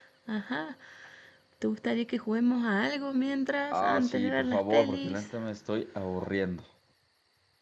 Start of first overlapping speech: 4 s

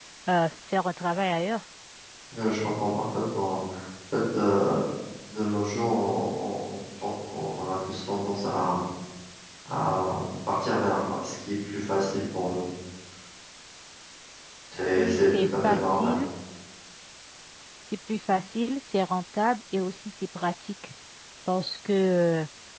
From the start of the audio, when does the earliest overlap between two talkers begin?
15 s

